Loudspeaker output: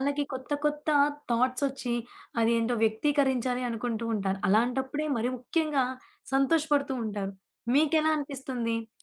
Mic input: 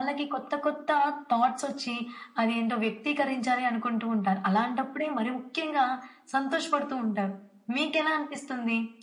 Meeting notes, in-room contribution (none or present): none